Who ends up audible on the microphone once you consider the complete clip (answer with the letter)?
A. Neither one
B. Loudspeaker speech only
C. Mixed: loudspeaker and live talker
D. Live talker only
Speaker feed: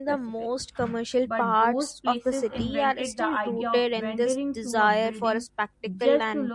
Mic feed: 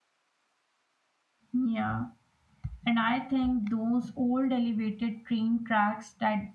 D